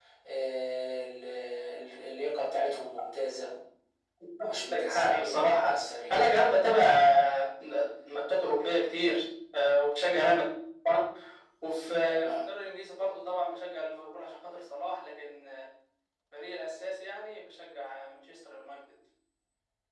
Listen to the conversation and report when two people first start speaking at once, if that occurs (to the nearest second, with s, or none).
4 s